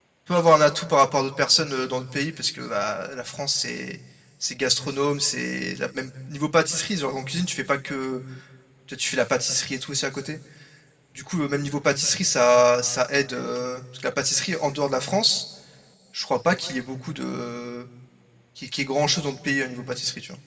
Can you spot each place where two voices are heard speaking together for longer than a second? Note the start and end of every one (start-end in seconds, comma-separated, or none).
none